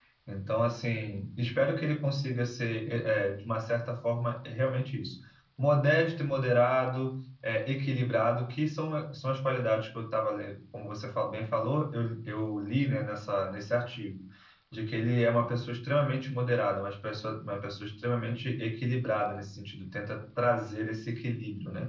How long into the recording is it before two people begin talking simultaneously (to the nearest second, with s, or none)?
none